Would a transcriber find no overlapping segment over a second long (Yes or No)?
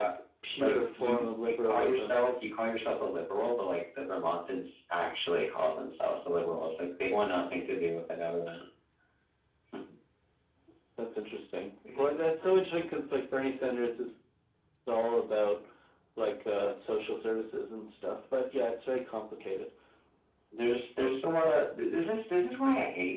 No